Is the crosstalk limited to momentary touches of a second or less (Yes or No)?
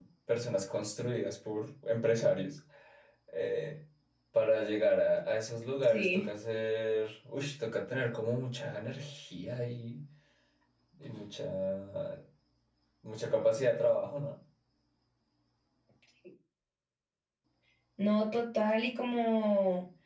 Yes